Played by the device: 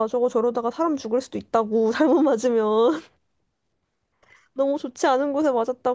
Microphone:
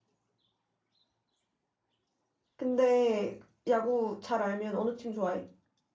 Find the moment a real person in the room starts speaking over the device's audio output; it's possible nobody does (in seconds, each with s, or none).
2.5 s